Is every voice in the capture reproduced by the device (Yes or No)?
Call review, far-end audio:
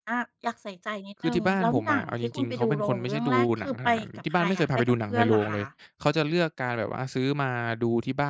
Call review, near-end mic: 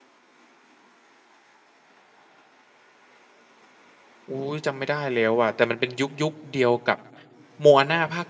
No